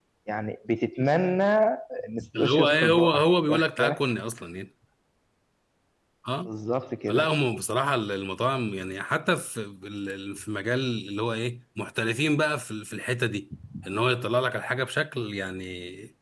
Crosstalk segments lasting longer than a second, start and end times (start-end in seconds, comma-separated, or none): 2.4-4.0